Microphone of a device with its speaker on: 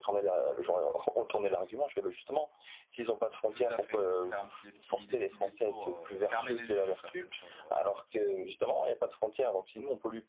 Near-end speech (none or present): present